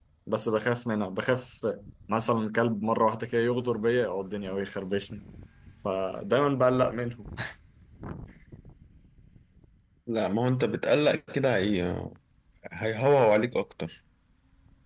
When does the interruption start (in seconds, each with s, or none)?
none